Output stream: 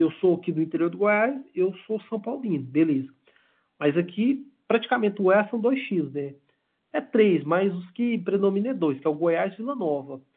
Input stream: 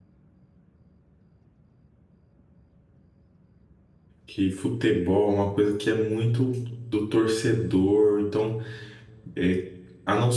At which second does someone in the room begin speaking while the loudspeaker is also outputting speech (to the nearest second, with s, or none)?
4 s